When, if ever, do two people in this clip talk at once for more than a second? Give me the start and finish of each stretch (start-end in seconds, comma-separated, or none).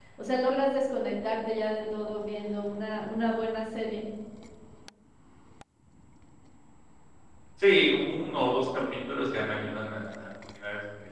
none